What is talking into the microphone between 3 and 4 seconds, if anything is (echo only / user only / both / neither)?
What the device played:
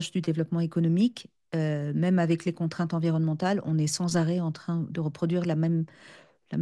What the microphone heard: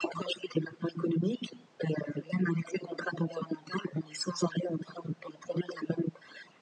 echo only